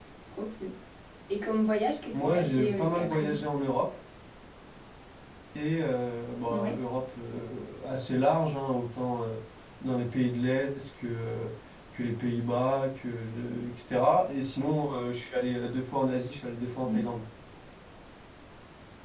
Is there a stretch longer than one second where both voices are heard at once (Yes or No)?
Yes